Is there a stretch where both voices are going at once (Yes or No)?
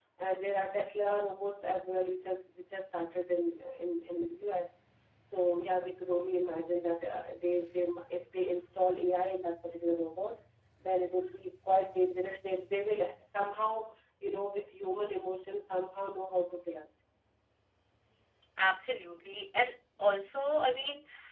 No